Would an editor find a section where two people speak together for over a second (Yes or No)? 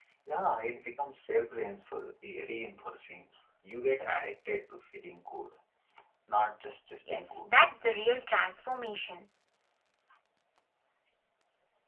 No